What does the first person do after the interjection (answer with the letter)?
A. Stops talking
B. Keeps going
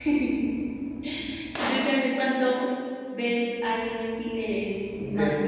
A